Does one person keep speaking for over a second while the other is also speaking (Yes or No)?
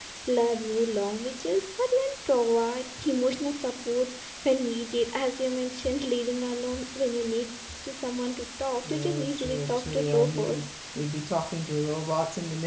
Yes